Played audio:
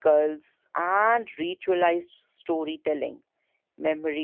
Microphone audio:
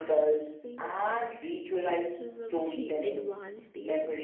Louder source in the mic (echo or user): echo